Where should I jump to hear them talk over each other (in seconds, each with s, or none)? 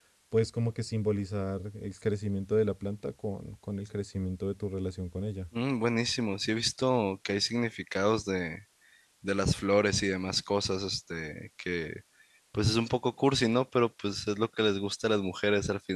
none